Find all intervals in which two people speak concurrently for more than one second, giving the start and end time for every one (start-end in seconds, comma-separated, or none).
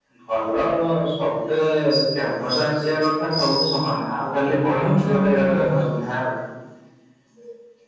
4.5-6.0